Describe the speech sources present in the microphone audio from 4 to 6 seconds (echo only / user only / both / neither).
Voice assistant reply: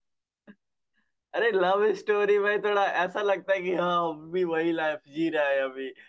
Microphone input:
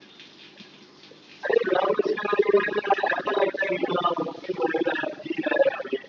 echo only